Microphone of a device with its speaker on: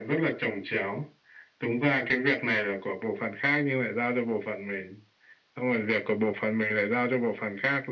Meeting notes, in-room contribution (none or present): none